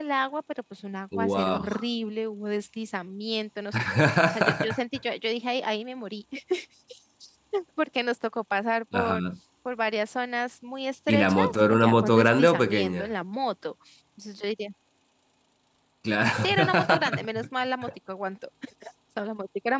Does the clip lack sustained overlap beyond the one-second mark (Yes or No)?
No